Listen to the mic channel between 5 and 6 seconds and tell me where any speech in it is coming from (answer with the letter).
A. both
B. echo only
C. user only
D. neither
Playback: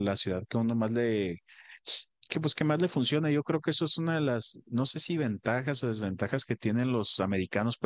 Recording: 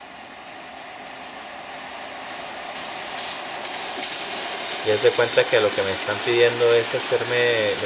C